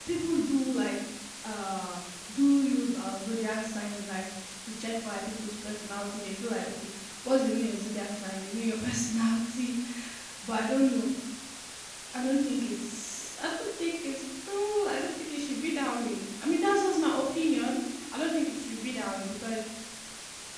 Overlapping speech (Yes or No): No